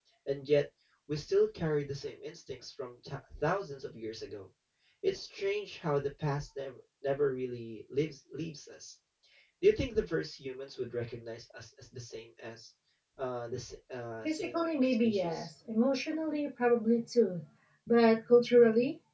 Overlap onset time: 14.2 s

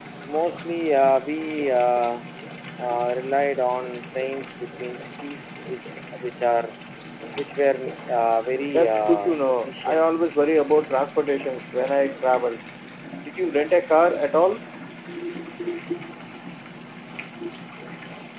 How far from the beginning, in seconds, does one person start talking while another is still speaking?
8.7 s

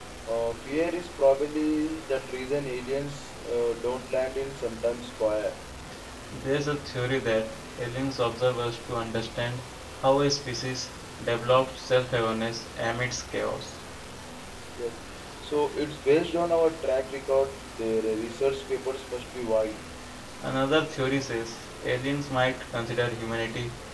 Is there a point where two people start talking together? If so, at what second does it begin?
none

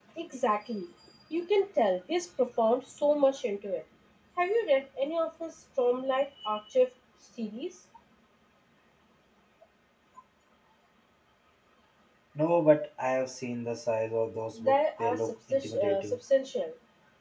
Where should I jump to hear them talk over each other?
14.6 s

